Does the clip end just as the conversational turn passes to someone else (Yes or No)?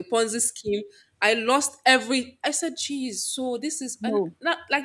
No